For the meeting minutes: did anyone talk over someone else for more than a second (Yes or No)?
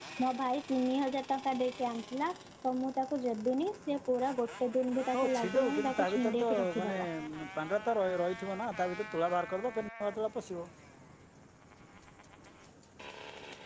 Yes